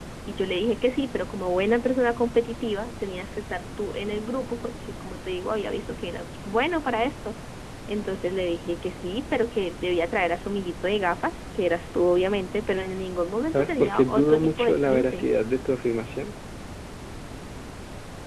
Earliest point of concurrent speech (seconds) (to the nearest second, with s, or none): 14 s